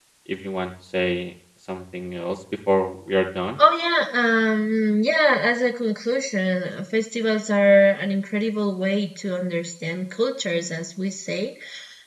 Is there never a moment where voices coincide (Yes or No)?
Yes